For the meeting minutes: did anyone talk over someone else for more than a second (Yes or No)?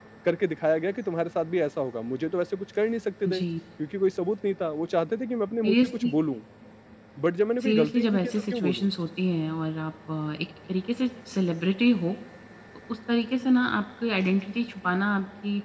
Yes